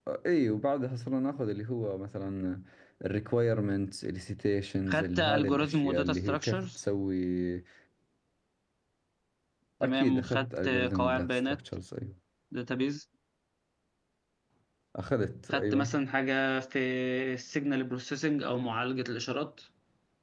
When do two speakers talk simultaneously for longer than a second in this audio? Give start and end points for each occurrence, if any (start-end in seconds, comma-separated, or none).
4.9-6.7, 9.8-11.6